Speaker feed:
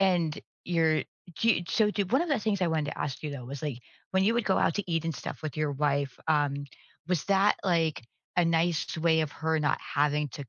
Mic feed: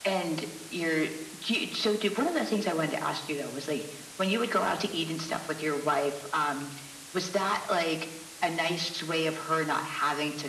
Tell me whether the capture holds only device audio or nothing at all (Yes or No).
Yes